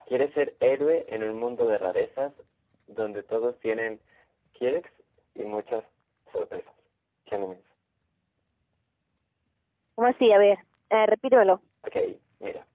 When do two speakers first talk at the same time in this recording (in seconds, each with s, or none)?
none